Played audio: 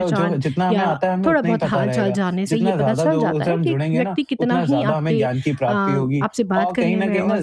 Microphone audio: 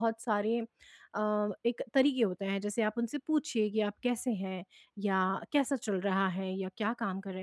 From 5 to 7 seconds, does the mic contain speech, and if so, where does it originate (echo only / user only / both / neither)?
user only